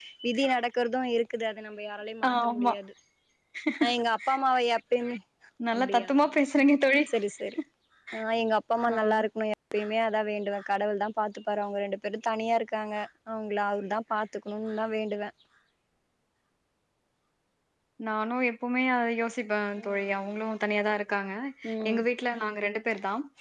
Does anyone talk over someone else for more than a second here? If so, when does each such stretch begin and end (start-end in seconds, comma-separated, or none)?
none